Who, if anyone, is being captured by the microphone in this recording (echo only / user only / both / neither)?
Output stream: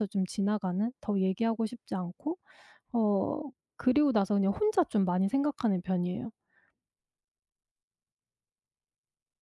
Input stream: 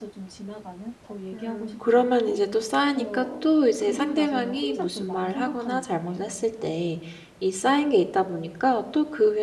both